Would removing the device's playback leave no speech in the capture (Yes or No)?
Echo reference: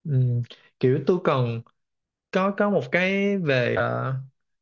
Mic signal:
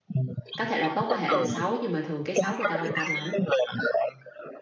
No